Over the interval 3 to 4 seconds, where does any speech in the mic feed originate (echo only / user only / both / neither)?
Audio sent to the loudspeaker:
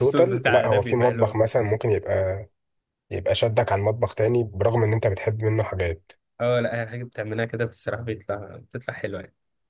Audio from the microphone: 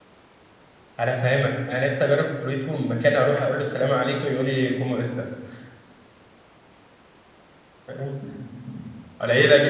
user only